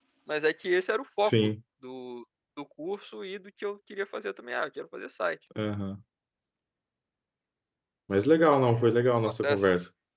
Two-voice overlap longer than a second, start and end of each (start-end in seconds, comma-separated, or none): none